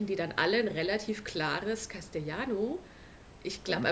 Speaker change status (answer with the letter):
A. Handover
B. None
B